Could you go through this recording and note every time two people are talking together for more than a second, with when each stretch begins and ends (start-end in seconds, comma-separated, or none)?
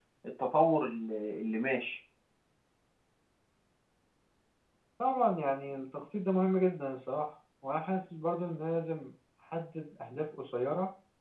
none